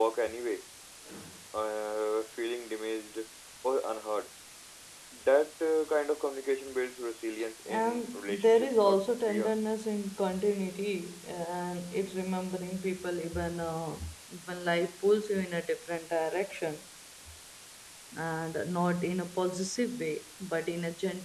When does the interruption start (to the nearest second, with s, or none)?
8 s